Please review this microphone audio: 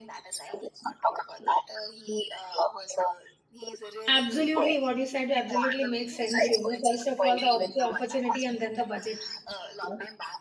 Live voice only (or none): Absolutely, what you said absolutely makes sense. You know, first of all, the op- opportunity and then the budget.